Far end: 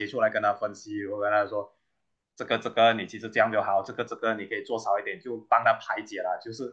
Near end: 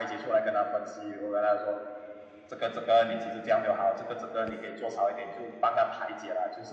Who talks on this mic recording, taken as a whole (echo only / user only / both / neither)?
echo only